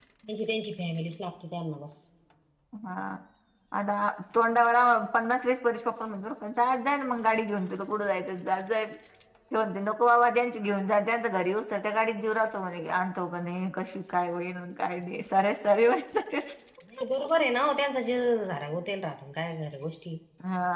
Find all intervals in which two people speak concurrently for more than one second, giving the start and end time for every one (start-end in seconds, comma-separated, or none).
none